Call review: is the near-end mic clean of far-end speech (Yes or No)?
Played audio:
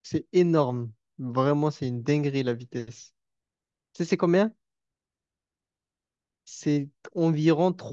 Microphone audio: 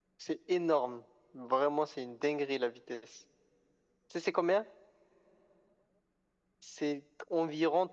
No